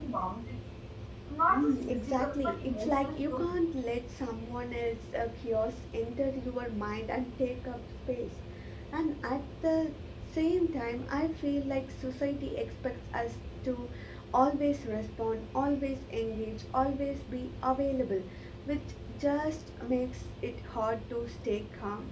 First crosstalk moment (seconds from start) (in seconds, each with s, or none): 1.5 s